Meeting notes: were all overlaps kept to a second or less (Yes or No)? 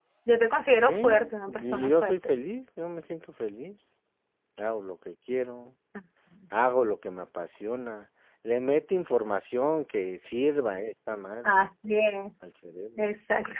No